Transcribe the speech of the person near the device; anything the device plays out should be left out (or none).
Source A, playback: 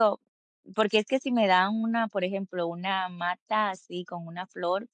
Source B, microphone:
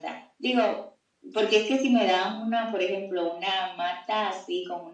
none